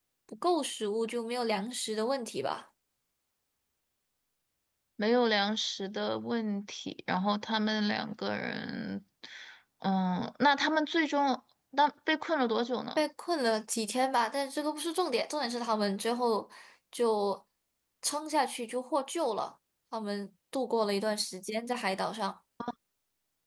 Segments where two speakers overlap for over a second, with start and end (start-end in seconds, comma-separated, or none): none